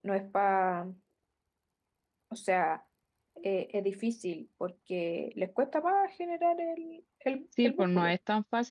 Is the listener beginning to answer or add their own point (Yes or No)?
Yes